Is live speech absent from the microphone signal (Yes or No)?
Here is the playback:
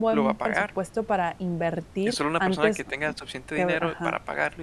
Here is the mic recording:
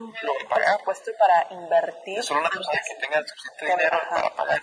Yes